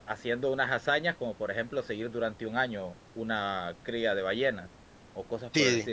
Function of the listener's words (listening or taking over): taking over